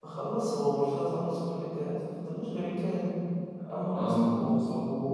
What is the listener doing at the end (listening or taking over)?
listening